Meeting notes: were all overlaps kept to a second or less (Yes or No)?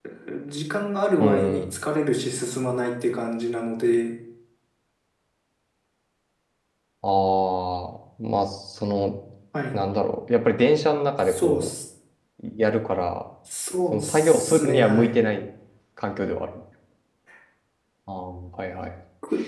No